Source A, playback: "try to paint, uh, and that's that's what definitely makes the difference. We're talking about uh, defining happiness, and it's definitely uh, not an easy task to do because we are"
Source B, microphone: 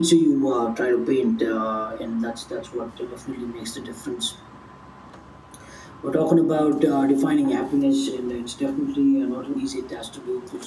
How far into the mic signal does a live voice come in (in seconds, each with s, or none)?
none